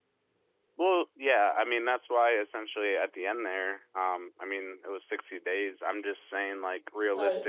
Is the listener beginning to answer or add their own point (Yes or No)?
Yes